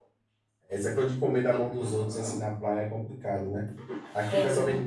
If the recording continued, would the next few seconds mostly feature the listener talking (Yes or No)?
No